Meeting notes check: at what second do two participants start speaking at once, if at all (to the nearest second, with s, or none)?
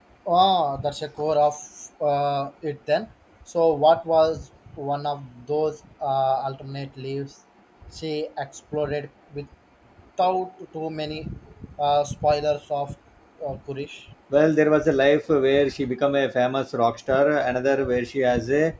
none